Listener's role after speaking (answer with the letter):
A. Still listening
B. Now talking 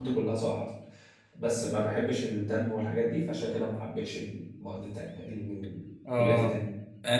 B